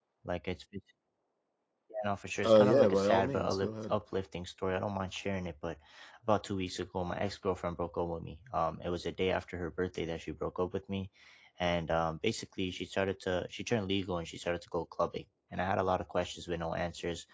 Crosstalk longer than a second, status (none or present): present